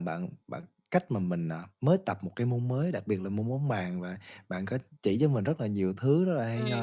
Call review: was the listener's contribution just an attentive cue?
Yes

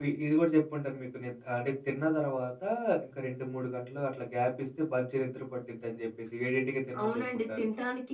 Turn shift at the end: Yes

